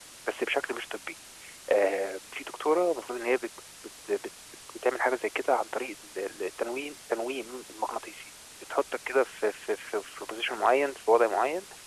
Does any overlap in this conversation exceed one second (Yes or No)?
No